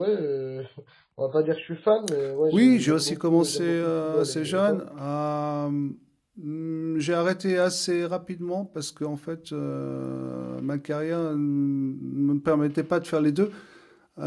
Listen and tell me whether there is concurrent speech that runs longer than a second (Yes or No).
Yes